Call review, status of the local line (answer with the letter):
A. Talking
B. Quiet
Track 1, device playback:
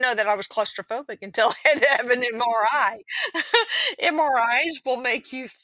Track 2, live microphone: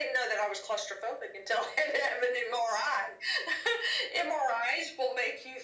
B